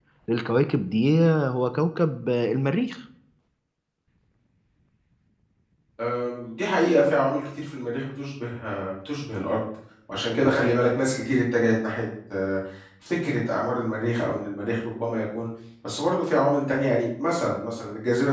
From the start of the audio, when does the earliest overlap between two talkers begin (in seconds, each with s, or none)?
none